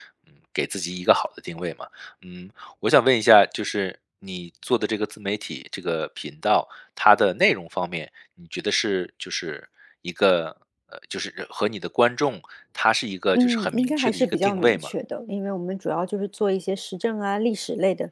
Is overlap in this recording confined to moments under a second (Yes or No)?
No